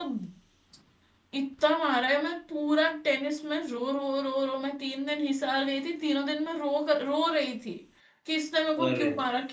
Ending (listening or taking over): listening